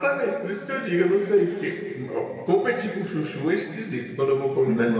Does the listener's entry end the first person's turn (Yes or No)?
No